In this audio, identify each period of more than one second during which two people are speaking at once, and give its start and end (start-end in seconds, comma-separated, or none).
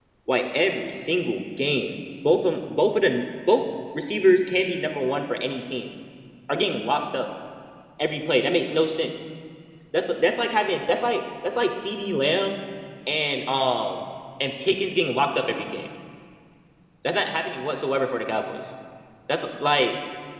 none